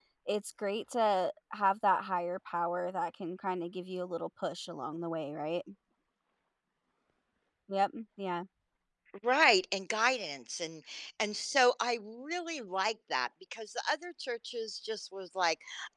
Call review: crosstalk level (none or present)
none